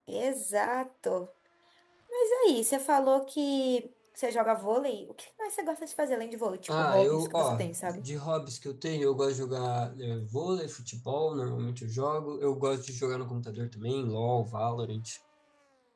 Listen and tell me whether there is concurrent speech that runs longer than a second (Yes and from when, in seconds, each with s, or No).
Yes, from 6.7 s